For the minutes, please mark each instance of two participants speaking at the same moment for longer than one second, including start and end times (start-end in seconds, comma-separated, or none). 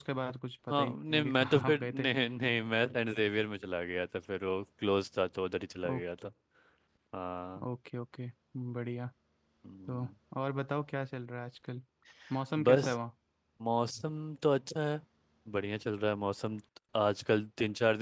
0.7-2.1